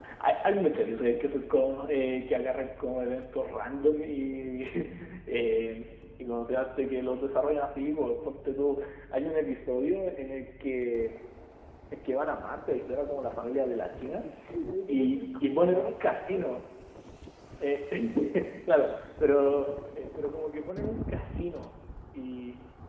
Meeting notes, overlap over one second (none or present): present